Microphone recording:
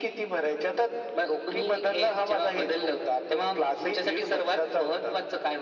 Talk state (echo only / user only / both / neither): echo only